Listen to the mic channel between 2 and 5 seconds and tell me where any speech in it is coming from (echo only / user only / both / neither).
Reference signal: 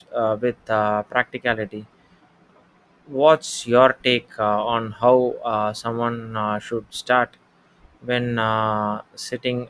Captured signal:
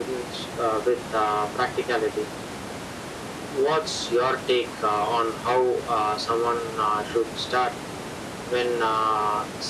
echo only